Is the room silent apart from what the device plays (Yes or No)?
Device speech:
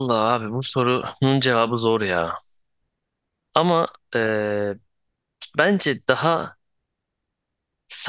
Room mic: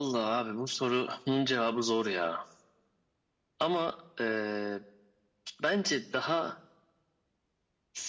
Yes